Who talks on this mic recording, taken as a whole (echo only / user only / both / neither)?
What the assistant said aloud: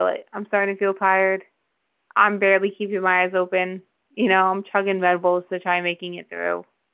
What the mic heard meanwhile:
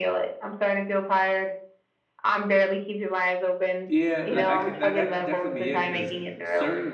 both